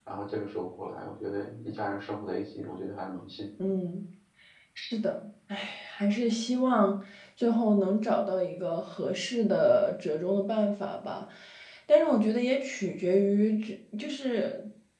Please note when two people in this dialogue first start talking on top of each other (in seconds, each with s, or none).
none